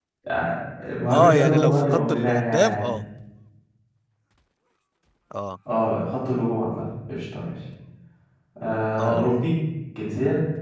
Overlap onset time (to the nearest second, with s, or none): 1 s